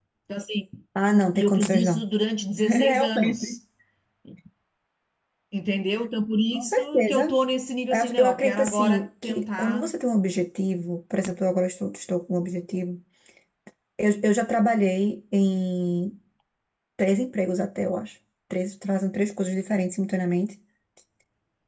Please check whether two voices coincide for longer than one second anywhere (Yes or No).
Yes